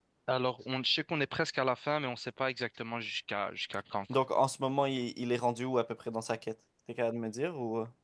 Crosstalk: none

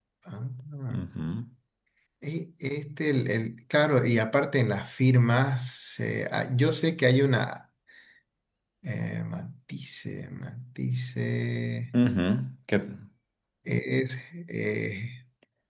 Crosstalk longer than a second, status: none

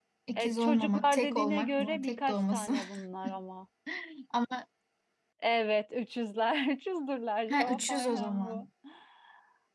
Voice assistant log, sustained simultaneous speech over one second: present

